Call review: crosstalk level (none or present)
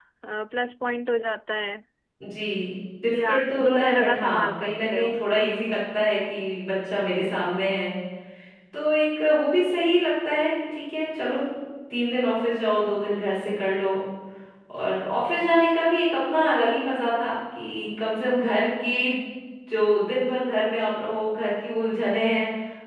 present